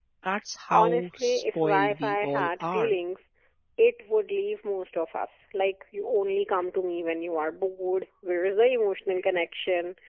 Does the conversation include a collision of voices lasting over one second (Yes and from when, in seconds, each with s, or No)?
Yes, from 0.7 s